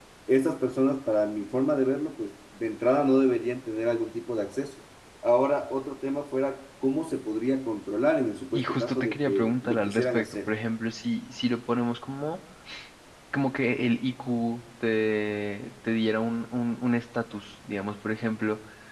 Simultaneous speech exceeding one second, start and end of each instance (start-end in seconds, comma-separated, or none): 8.5-10.5